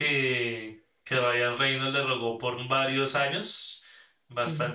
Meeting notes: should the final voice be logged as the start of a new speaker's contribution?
No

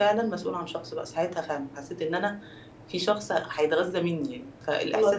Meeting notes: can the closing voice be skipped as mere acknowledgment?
Yes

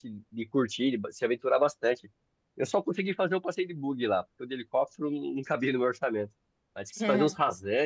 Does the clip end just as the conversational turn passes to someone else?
No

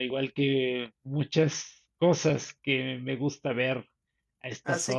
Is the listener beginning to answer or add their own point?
Yes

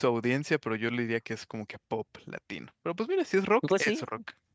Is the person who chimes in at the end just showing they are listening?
No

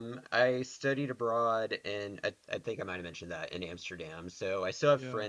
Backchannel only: Yes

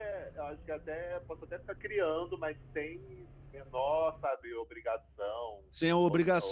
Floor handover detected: Yes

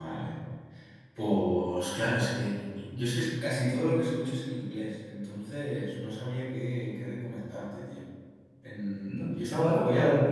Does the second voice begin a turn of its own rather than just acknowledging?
Yes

